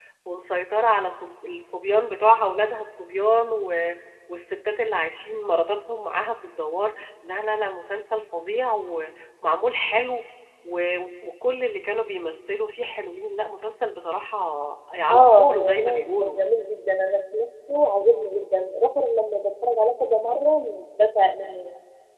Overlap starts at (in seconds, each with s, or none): 15.1 s